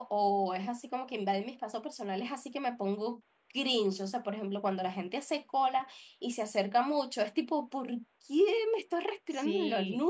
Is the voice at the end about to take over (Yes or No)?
Yes